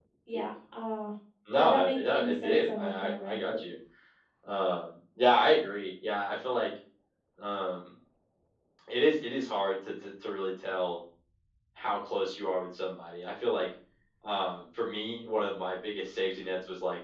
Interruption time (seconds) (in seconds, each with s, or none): 1.6 s